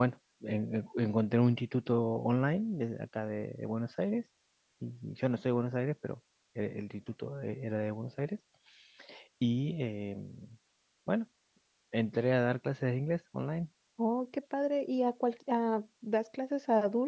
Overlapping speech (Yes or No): No